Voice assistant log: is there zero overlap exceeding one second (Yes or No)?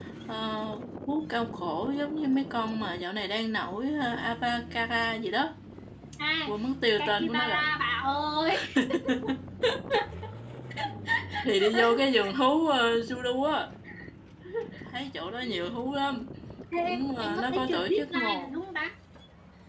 No